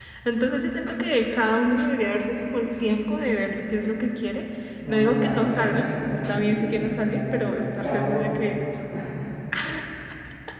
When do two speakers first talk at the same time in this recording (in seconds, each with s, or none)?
4.9 s